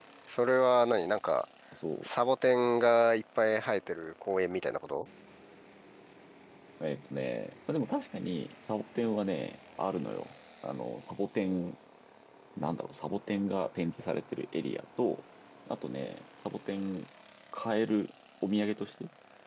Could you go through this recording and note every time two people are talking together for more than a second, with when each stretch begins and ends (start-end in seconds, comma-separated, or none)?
none